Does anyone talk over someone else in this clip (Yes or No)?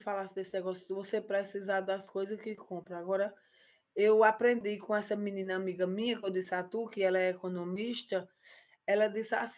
No